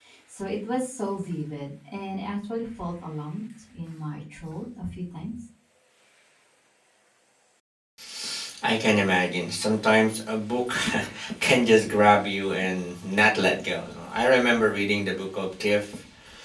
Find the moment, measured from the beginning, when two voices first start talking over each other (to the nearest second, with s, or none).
none